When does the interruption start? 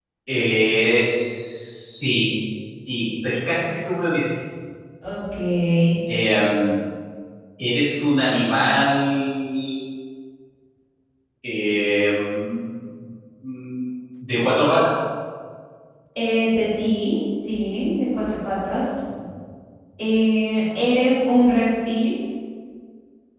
none

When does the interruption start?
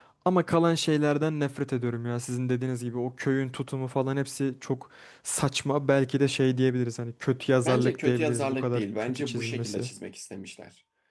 7.6 s

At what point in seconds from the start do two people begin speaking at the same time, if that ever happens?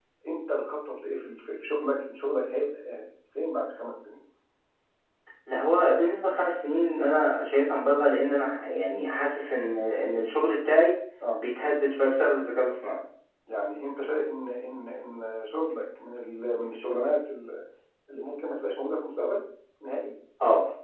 none

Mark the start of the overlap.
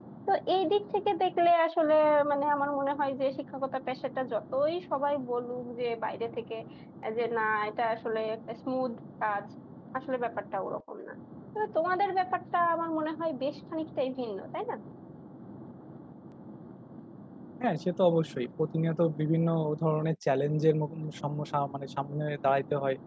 none

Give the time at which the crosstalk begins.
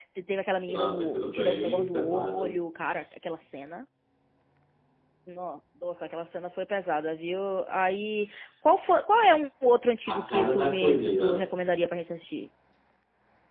0.7 s

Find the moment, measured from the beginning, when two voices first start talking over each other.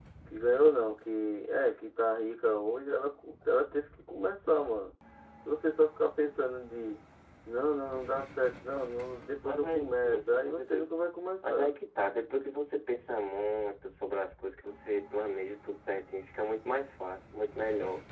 9.4 s

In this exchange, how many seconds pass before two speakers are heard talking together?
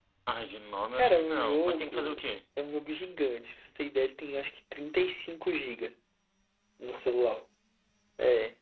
1.0 s

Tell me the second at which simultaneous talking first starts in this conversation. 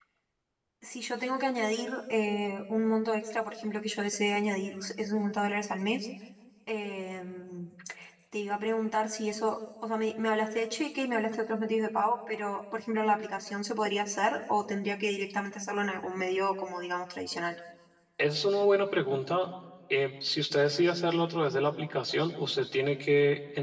none

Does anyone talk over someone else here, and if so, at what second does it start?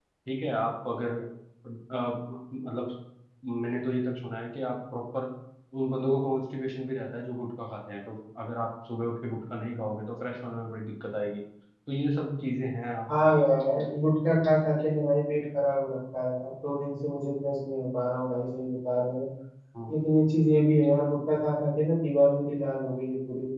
none

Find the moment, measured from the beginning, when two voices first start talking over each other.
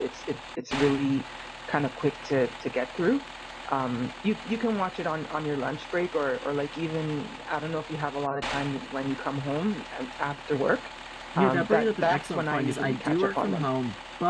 11.4 s

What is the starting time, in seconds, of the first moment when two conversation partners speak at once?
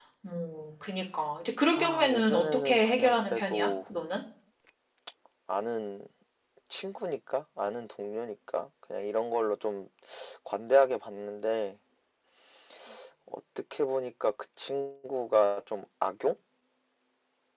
1.7 s

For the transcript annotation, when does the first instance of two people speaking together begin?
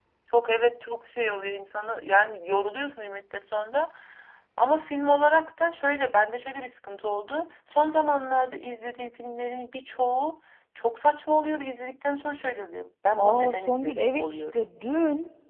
13.2 s

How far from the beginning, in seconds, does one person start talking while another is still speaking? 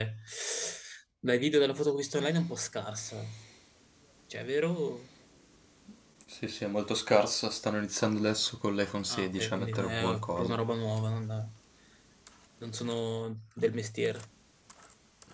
9.1 s

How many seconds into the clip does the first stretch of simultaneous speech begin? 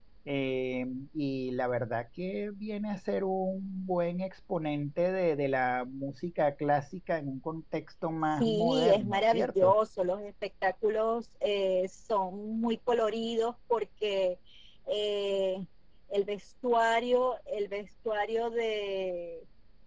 8.4 s

